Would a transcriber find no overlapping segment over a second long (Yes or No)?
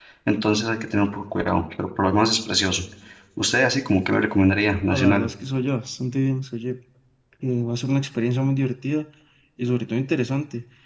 Yes